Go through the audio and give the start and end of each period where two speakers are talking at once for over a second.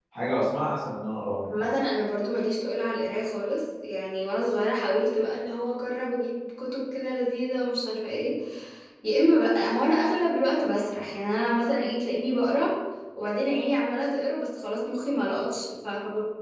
none

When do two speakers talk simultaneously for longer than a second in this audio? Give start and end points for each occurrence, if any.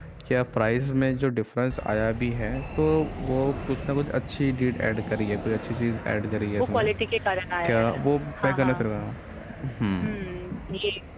none

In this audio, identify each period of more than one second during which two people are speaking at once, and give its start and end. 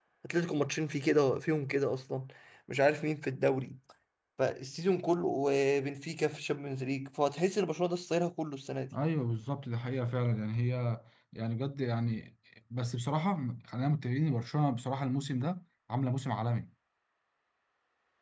none

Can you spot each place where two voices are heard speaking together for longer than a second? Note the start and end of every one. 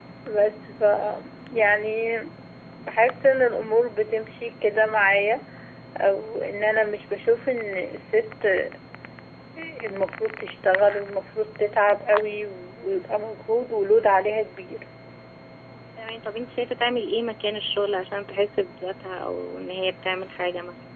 none

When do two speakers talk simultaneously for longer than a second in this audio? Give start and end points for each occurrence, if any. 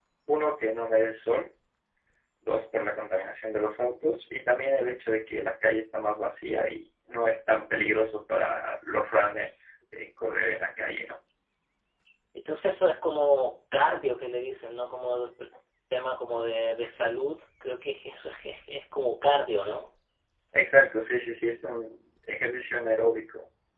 none

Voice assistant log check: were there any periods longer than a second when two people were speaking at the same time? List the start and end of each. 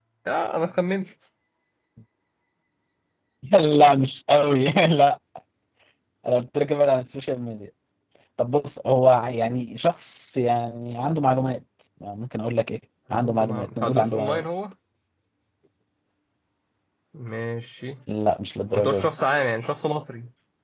13.1-14.4

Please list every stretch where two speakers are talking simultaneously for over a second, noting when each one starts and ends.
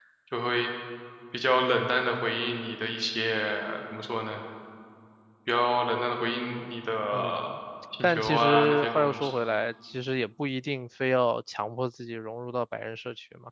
8.0-9.3

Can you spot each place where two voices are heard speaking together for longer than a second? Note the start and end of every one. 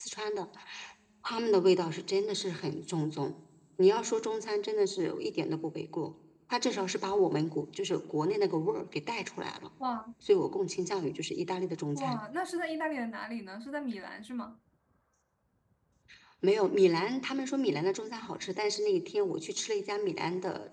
none

